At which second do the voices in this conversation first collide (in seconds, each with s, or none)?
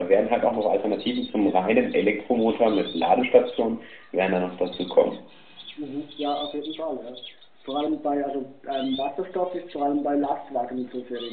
none